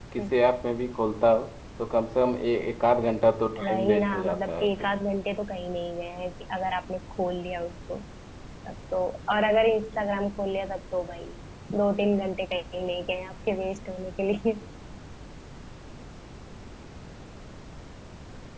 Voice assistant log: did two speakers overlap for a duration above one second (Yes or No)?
Yes